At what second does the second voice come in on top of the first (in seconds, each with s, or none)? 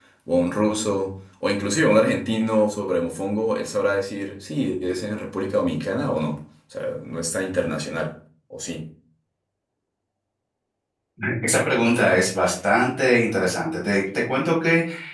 none